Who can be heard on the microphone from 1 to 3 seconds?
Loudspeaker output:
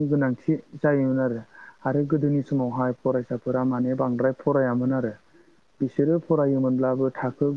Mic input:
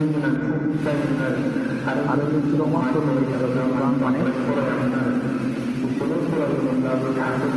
both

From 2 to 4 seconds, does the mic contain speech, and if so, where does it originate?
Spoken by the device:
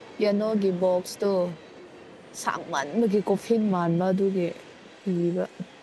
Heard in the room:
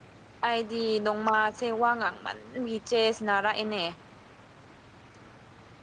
user only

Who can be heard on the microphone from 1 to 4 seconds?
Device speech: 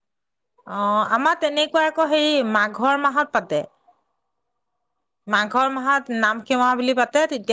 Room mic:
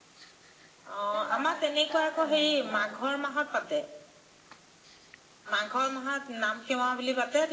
both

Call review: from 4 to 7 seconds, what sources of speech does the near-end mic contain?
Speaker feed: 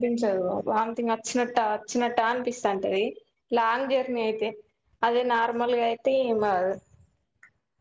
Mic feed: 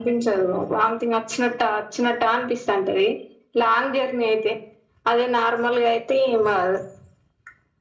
echo only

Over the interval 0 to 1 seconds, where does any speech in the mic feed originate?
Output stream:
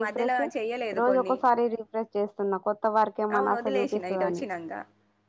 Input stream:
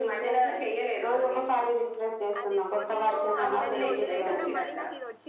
echo only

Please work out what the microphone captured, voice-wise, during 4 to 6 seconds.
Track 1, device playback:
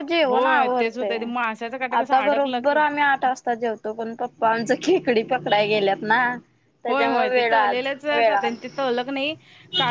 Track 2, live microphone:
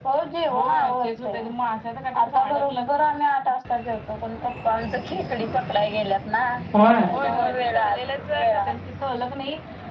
echo only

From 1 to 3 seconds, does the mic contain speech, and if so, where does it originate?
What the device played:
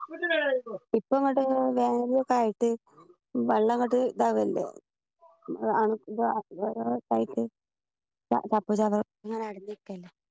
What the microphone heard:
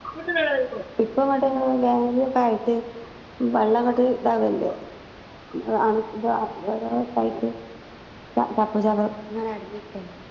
echo only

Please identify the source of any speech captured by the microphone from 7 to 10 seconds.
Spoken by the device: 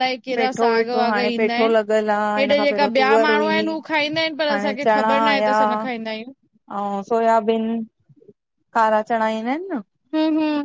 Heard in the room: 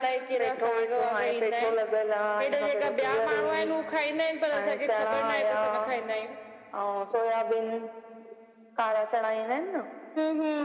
echo only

